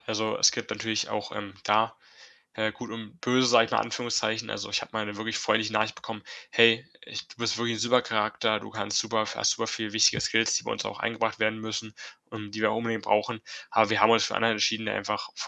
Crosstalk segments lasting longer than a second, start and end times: none

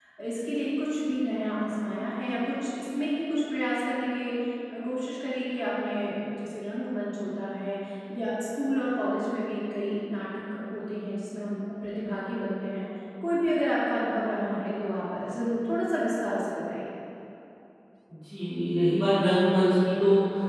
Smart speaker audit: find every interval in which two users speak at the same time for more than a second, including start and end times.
none

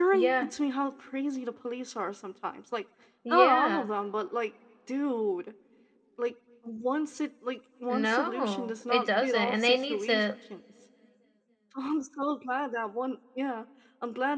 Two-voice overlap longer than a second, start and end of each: 7.9-10.2

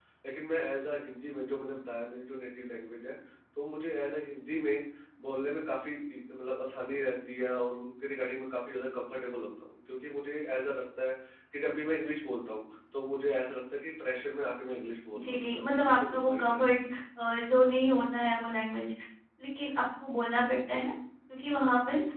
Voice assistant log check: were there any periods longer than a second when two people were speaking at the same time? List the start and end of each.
15.1-16.8

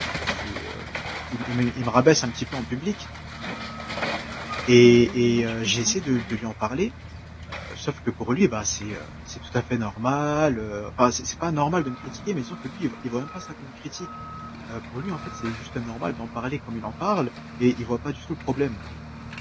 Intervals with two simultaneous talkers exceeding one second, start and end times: 4.8-6.4

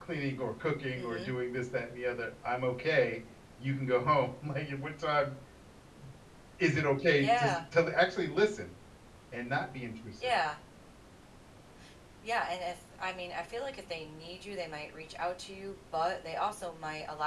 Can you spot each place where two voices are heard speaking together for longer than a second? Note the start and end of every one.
none

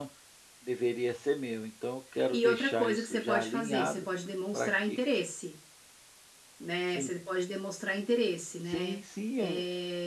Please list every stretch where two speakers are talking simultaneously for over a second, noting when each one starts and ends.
2.3-4.1

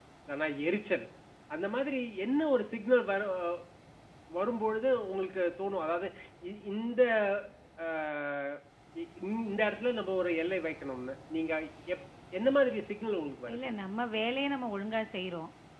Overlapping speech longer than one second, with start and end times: none

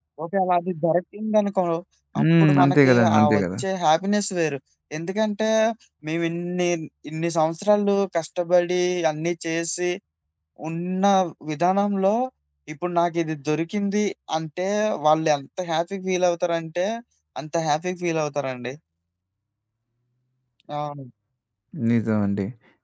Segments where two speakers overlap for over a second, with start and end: 2.2-3.4

